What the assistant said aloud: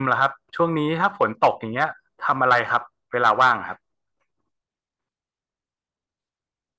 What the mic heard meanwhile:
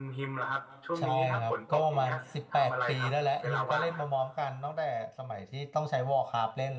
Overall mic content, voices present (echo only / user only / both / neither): both